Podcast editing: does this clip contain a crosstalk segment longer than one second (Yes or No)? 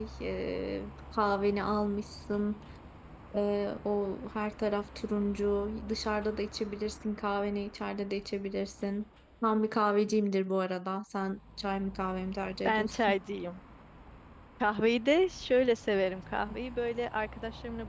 No